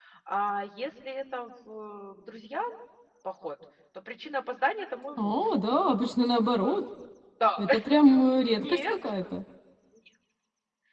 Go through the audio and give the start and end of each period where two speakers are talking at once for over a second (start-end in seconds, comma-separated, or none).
none